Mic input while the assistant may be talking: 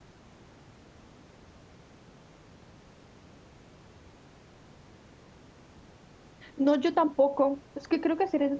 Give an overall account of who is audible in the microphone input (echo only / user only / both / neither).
user only